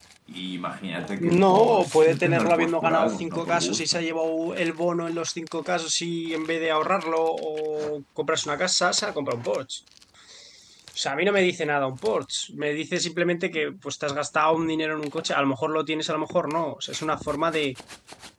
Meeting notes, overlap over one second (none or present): present